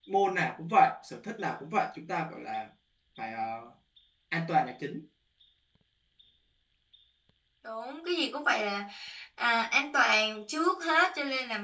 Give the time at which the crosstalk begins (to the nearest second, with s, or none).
none